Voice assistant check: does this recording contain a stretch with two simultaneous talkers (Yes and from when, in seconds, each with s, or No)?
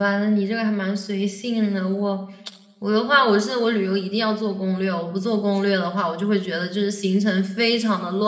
No